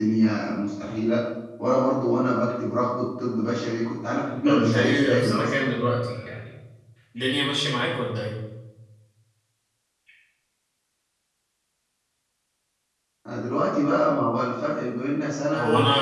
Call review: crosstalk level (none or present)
present